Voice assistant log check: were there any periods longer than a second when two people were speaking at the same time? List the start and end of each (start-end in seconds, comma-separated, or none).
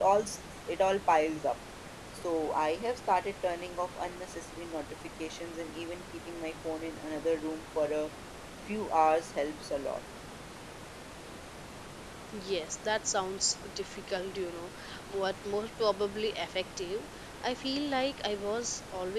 none